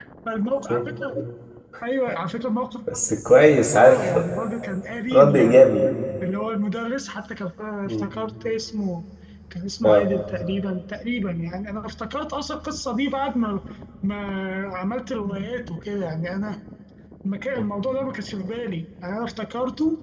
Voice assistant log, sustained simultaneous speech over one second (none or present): none